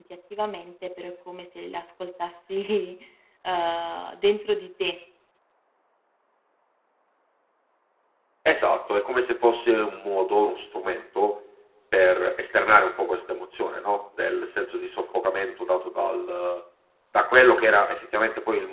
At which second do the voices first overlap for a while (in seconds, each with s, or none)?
none